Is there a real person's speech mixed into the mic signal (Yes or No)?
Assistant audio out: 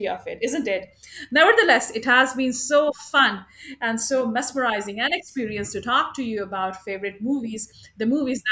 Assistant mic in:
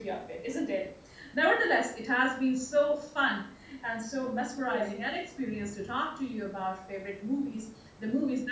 Yes